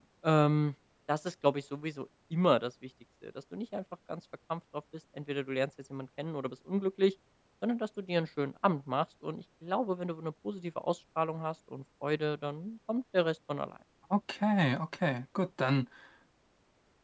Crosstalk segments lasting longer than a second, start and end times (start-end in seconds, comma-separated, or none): none